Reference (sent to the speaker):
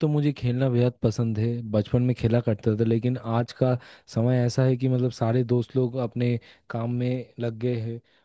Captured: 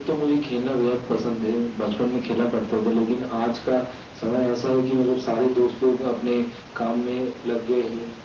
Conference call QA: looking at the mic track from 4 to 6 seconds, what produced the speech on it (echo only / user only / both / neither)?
echo only